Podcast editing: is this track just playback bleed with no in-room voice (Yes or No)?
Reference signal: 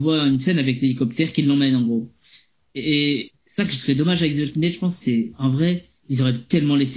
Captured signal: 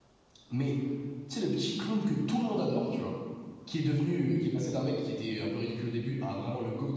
No